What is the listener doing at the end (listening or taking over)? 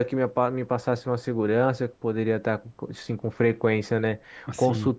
listening